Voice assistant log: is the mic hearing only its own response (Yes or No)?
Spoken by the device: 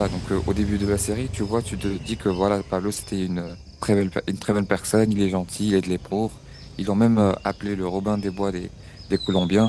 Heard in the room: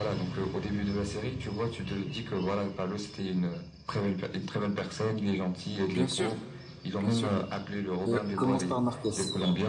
No